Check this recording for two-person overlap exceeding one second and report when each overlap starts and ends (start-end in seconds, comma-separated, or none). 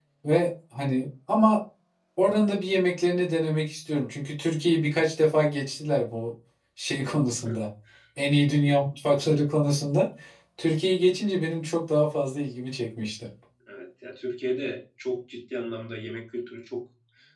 none